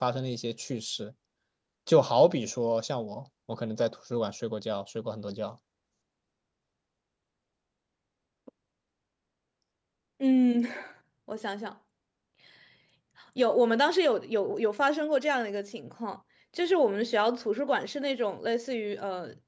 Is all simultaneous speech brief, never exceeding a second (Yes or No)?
Yes